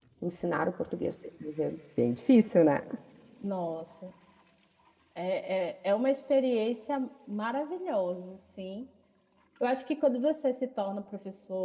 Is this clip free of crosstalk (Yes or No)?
Yes